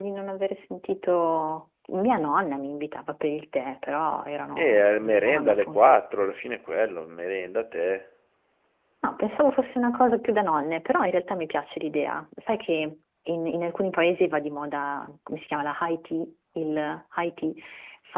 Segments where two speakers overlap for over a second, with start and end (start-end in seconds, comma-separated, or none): 4.6-5.8